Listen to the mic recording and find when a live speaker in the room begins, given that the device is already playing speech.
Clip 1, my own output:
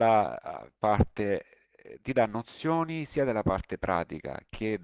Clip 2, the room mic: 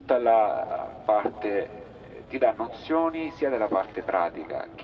none

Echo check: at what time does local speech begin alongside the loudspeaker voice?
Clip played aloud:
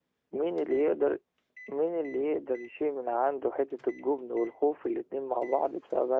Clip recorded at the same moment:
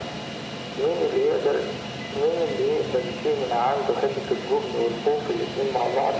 none

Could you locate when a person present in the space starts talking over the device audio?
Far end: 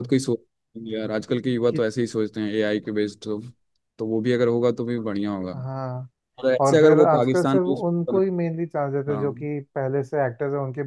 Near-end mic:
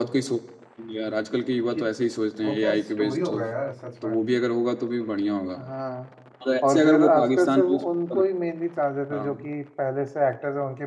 2.4 s

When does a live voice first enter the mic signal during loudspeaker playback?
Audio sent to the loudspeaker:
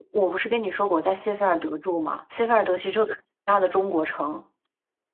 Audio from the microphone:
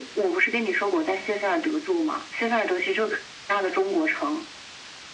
none

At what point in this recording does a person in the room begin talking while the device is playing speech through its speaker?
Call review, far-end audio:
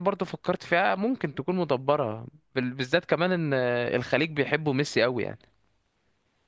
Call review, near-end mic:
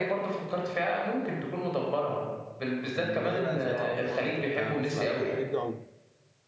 2.8 s

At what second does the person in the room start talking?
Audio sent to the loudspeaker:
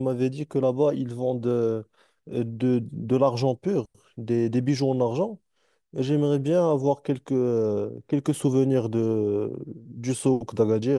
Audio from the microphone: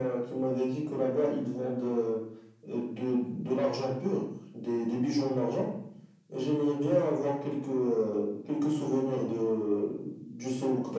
none

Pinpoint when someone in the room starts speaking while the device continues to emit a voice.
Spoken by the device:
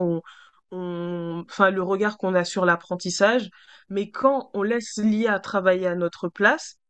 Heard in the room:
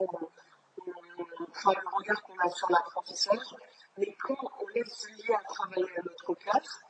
none

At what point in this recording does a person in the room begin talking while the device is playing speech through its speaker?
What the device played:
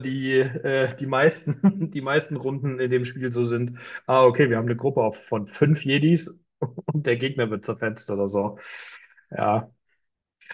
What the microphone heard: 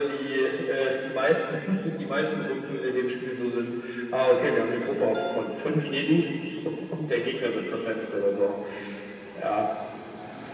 none

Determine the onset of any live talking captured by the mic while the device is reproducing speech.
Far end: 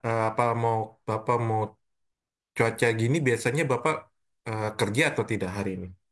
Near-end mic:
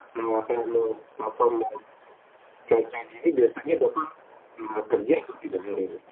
none

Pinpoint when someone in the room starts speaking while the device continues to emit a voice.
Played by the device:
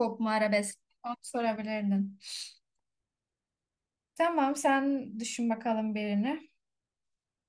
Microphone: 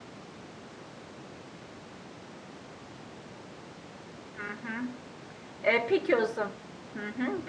4.4 s

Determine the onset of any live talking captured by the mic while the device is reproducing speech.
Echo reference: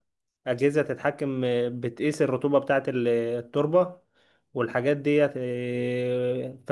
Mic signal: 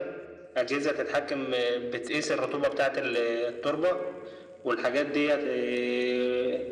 none

